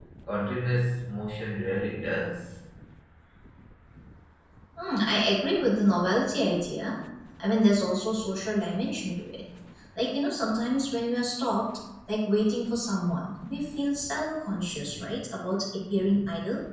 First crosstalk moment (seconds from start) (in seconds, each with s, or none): none